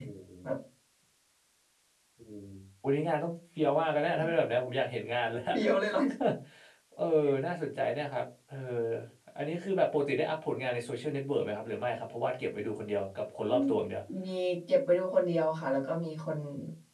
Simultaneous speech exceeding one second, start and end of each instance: none

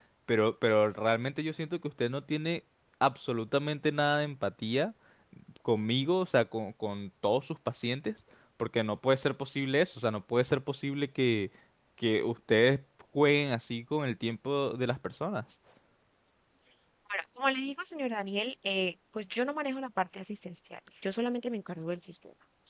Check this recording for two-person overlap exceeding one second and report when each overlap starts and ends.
none

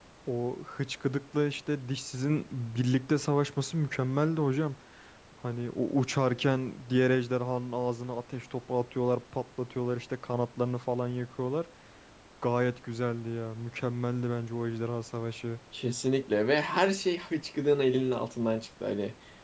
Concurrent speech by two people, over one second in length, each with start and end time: none

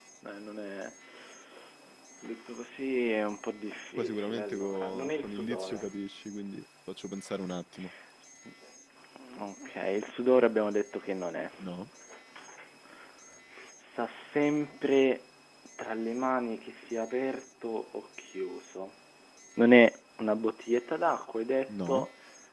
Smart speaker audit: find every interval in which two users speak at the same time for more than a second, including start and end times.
4.0-5.8

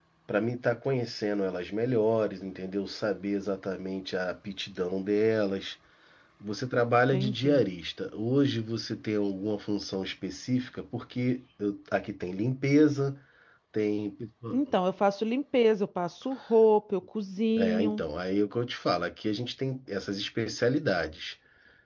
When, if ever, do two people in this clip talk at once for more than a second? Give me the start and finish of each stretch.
none

